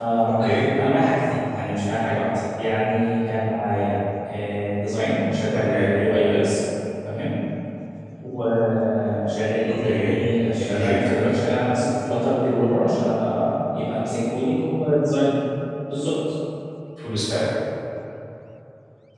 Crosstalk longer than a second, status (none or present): none